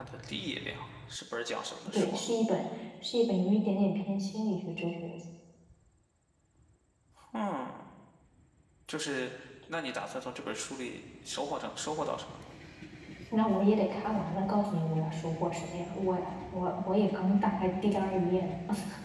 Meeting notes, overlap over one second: none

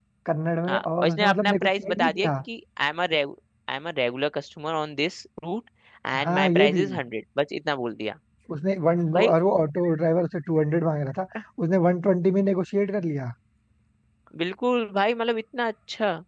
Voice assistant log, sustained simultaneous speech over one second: present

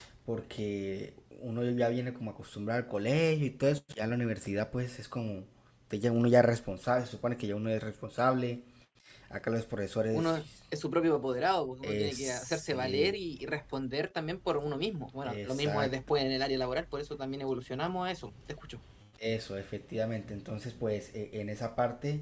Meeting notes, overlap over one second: present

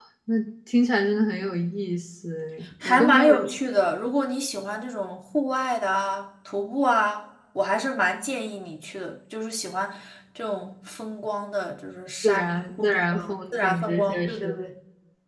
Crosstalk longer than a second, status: present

